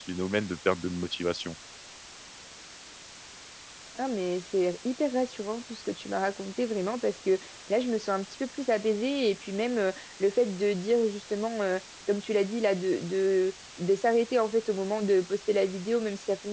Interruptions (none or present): none